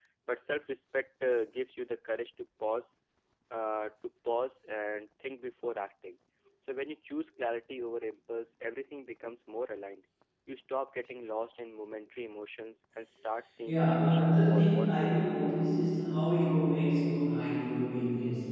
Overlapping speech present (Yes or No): Yes